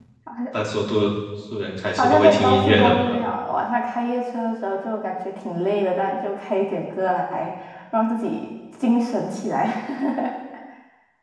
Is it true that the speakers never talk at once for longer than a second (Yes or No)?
No